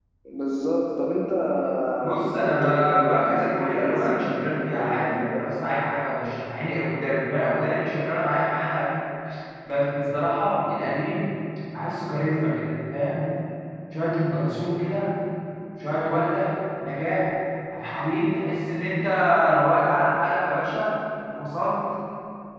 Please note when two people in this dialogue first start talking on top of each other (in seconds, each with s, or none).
2.2 s